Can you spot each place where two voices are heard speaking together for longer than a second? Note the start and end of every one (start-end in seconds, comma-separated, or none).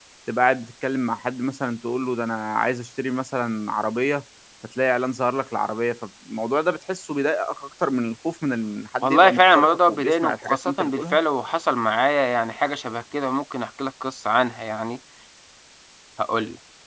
9.0-11.2